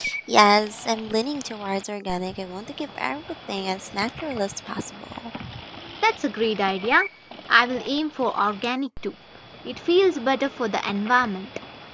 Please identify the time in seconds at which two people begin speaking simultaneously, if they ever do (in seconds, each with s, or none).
none